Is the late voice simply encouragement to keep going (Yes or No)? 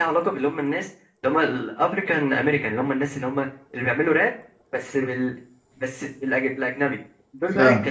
Yes